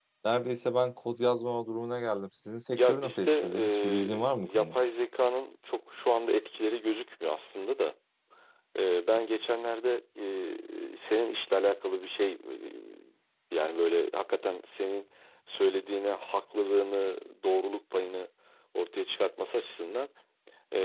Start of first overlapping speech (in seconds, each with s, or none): 2.7 s